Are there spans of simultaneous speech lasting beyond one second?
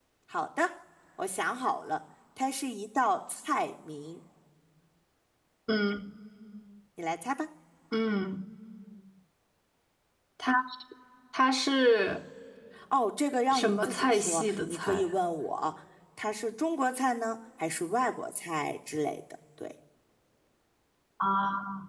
Yes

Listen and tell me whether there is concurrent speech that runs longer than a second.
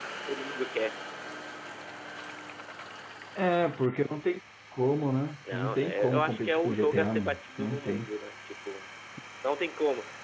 Yes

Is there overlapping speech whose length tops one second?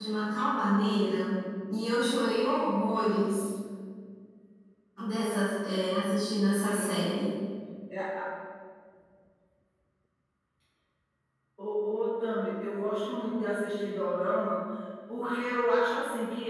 No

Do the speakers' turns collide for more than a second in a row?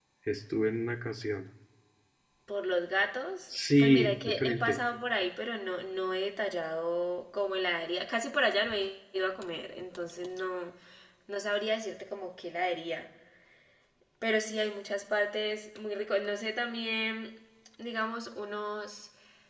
Yes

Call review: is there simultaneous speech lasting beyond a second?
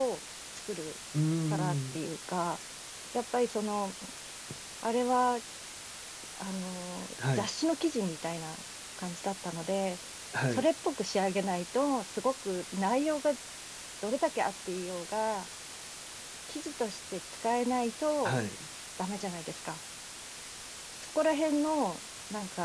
No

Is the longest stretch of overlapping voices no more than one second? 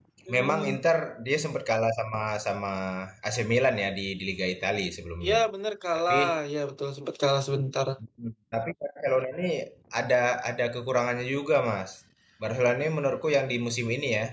Yes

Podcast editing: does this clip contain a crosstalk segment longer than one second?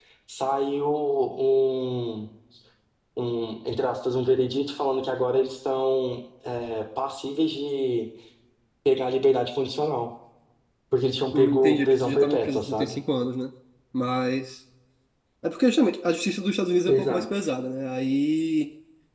Yes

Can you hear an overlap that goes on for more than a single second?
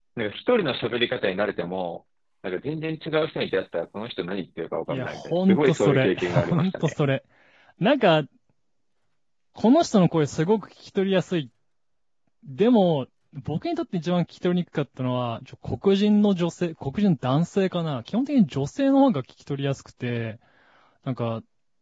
Yes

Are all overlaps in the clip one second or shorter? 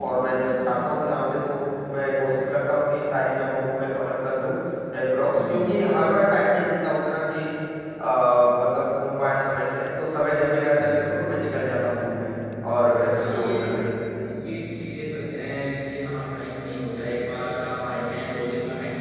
Yes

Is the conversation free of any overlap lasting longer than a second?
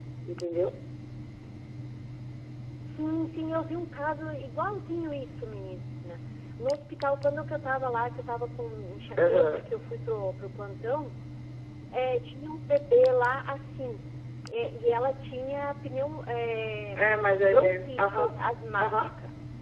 No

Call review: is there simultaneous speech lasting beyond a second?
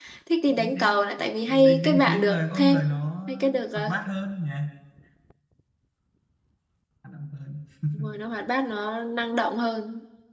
Yes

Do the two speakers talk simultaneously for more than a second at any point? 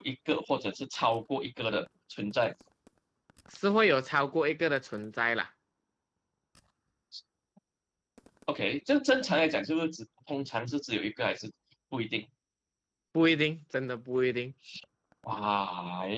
No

